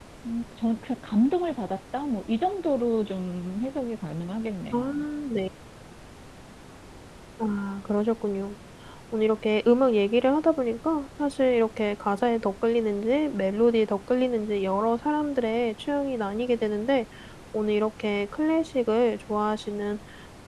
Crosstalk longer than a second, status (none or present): none